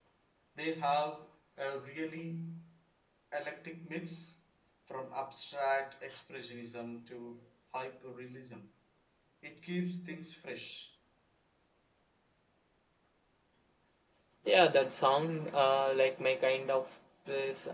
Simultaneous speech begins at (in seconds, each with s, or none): none